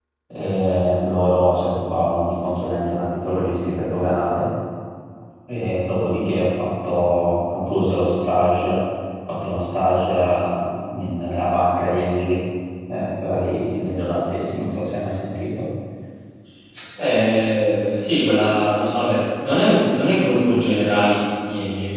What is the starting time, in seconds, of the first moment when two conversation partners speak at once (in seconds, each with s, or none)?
none